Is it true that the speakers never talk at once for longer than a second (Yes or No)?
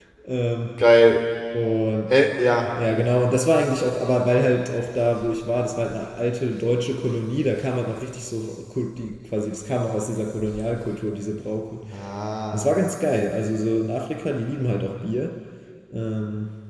Yes